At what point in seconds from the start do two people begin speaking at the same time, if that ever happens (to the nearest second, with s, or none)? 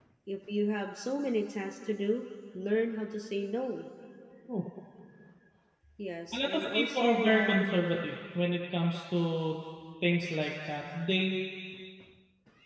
6 s